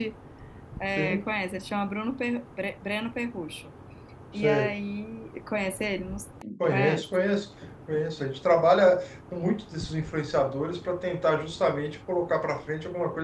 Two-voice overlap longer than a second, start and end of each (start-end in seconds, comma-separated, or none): none